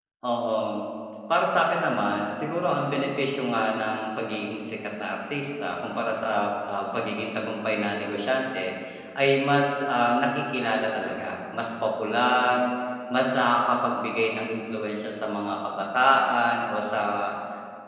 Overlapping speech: No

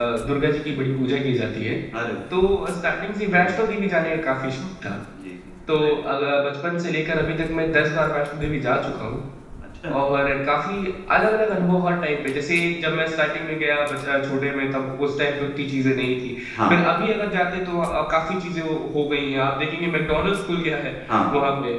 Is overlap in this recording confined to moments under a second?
Yes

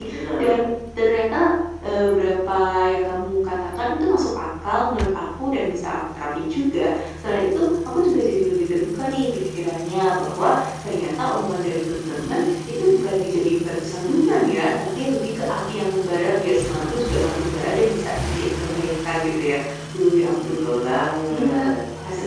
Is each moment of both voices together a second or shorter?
Yes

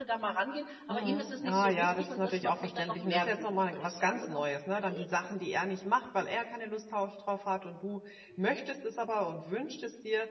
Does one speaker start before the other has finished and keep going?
Yes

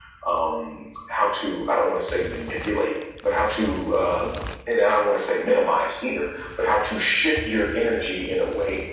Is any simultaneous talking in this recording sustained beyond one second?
No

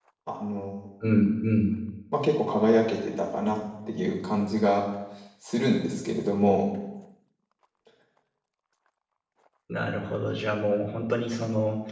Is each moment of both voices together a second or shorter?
Yes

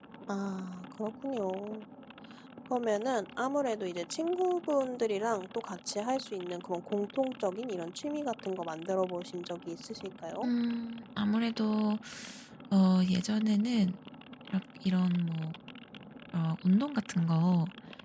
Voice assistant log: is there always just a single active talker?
Yes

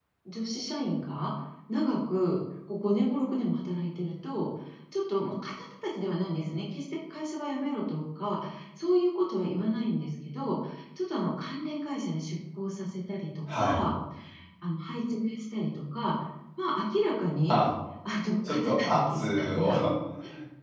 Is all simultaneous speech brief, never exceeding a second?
No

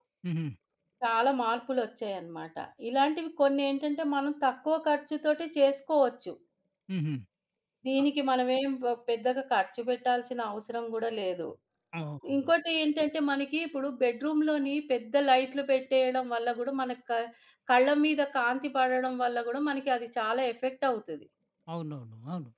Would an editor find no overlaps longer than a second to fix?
Yes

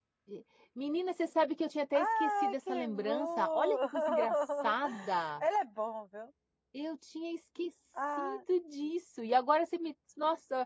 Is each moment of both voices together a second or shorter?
No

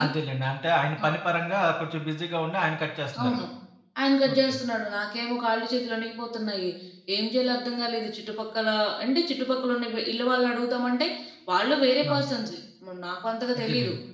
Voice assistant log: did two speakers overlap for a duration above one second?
No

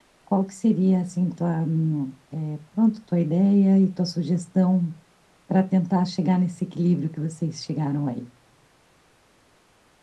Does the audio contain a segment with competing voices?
No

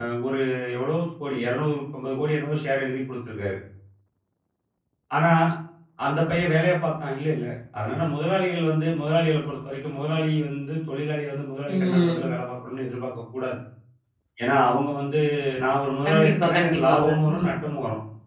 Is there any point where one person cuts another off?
Yes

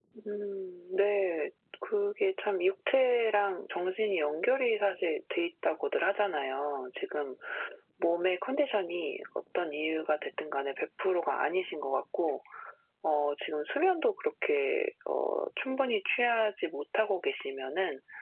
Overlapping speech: No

